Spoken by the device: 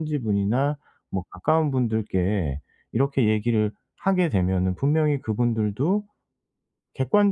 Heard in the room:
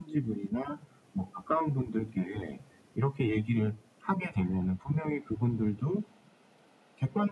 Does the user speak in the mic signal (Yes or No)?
No